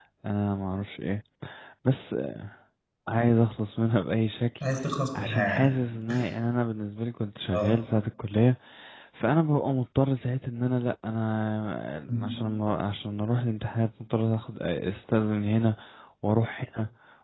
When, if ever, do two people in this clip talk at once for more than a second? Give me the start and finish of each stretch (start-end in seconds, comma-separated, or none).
none